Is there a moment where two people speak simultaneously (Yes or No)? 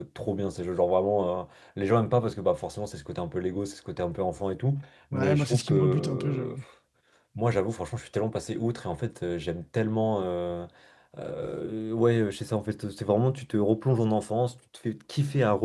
Yes